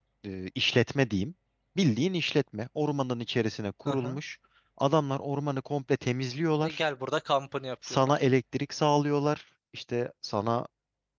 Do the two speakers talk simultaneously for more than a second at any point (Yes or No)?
No